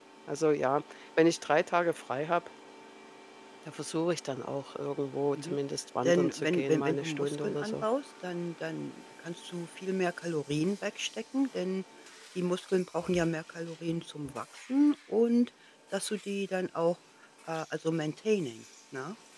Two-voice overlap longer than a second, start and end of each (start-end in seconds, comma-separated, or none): 6.0-7.8